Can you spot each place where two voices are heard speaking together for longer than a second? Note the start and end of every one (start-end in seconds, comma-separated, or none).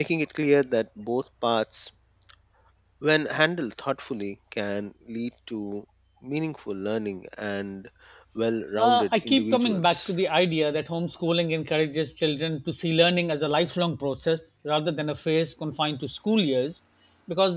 8.8-10.1